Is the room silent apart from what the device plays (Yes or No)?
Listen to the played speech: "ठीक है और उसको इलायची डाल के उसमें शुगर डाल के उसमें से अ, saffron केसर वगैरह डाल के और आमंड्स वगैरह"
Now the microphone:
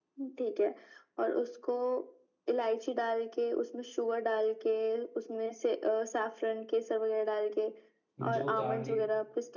No